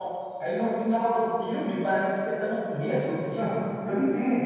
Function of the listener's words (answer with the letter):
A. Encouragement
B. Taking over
B